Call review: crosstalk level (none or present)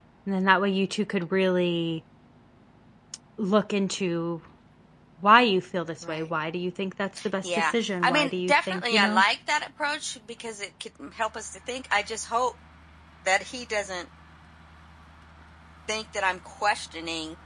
present